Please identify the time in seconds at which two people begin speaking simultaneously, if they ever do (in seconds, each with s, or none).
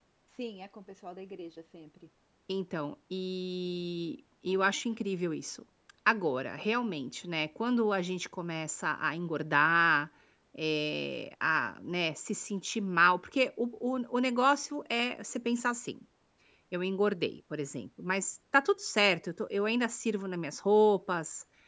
none